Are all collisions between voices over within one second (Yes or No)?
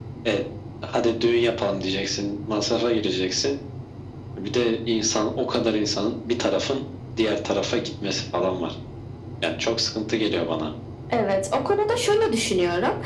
Yes